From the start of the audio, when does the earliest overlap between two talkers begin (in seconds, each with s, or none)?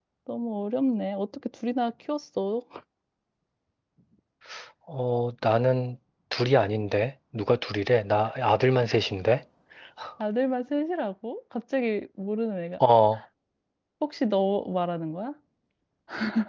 none